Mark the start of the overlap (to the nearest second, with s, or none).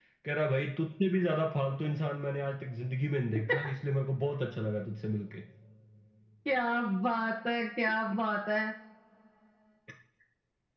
none